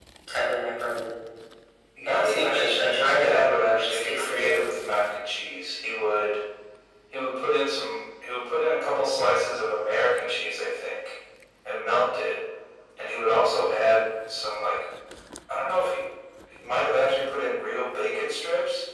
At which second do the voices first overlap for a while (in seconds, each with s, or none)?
2.1 s